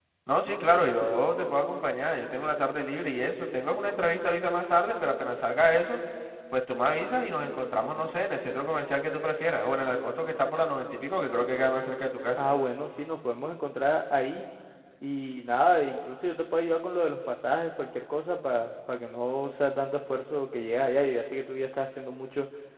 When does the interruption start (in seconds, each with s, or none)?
none